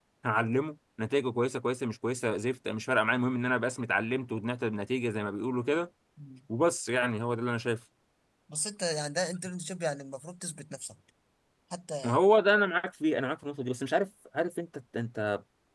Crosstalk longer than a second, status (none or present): none